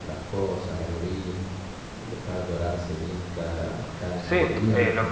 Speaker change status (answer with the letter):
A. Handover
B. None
A